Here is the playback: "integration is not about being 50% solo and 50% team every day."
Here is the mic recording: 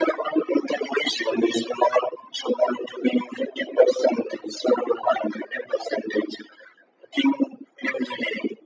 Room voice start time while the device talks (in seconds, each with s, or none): none